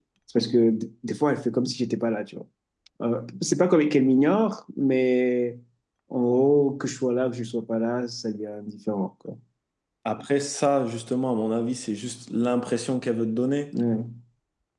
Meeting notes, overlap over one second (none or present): none